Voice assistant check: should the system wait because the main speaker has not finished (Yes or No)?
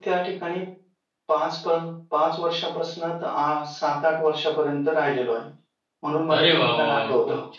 No